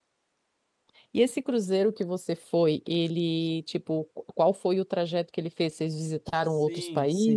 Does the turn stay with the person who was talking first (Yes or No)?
No